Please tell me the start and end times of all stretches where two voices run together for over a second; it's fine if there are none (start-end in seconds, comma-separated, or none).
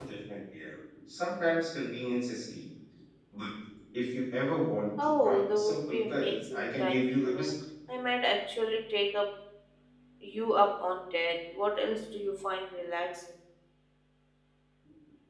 5.0-7.5